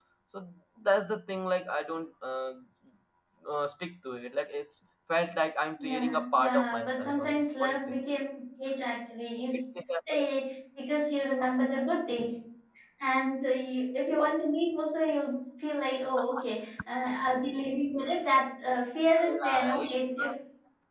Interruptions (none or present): present